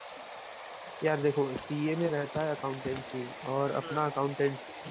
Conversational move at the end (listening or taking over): listening